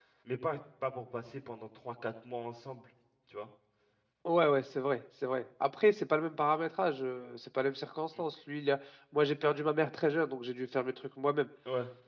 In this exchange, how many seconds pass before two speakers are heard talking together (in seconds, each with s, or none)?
none